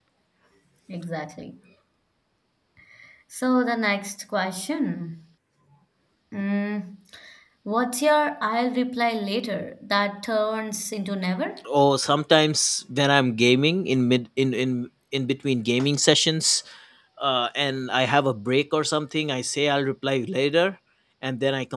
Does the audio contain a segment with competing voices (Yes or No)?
No